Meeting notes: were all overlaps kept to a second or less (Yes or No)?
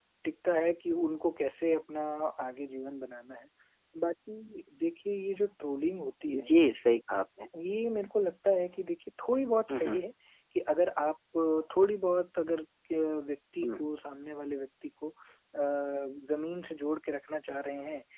Yes